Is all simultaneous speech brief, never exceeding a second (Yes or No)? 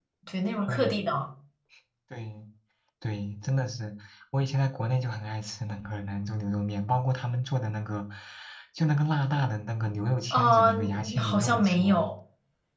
No